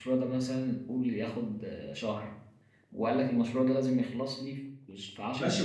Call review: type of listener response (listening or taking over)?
taking over